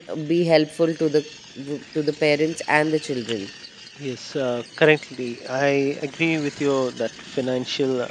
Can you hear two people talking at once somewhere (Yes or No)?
No